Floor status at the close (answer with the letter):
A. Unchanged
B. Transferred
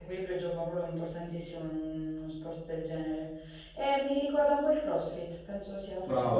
B